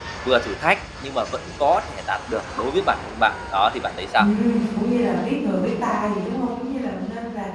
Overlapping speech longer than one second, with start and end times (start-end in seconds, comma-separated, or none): none